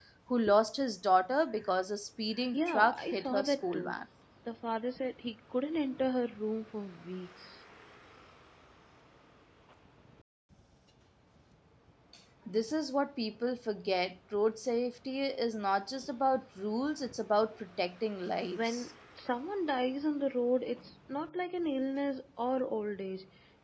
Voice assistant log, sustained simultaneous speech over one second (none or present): present